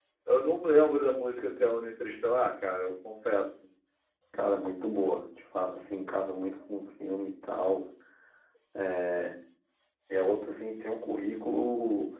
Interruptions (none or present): none